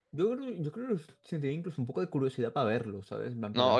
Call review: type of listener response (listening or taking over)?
taking over